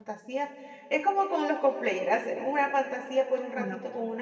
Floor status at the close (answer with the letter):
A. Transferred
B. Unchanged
B